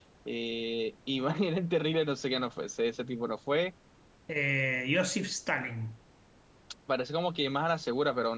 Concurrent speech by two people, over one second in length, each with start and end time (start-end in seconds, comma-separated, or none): none